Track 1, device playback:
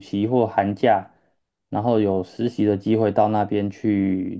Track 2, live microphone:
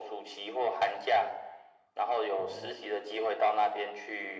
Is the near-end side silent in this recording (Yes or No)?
No